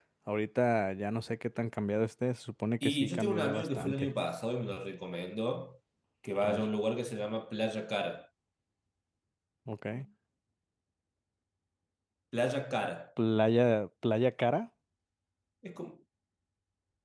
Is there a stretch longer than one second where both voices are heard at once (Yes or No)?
Yes